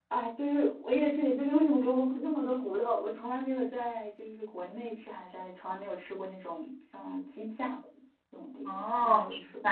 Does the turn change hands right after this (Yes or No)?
Yes